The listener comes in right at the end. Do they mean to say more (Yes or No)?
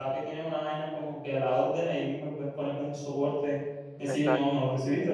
No